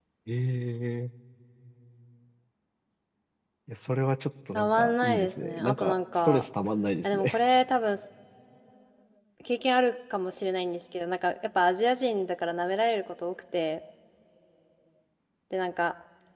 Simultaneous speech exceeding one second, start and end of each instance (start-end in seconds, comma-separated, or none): 4.6-6.5